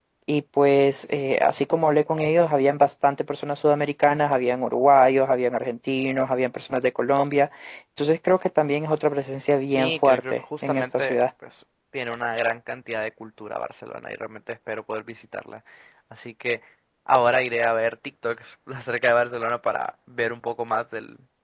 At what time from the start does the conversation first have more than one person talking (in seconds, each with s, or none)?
9.7 s